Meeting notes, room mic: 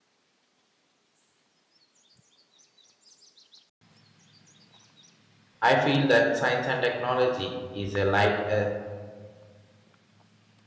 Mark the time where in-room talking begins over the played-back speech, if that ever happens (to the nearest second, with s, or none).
6 s